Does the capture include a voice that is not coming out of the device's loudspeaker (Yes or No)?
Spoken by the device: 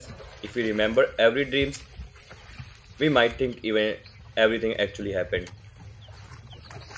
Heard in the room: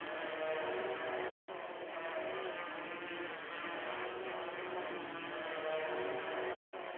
No